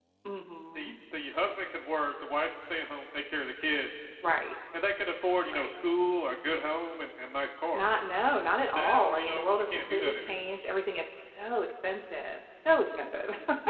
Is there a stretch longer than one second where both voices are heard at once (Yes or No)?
Yes